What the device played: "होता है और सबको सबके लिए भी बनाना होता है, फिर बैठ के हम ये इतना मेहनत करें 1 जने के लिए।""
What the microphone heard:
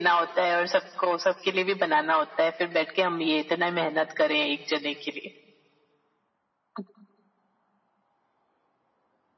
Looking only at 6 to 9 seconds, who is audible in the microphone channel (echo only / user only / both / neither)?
neither